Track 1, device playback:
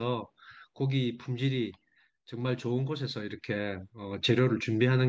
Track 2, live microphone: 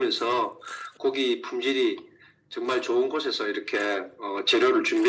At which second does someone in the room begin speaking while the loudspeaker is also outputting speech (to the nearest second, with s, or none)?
none